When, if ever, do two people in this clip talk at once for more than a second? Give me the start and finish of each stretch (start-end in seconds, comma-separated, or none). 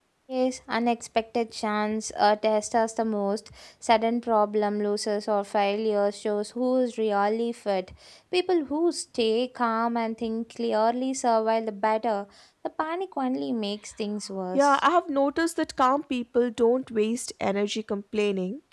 none